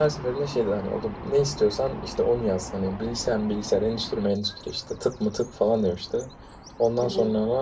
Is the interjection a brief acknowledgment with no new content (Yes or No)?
Yes